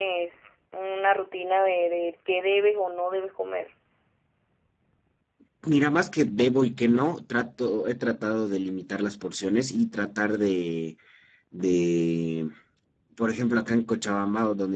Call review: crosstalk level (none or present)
none